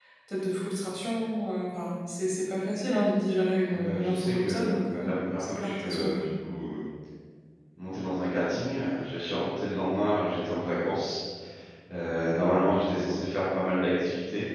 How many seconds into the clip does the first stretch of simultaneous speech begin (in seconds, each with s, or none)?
3.7 s